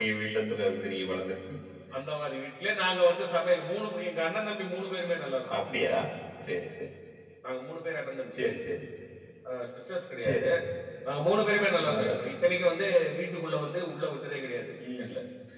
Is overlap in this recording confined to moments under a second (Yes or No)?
Yes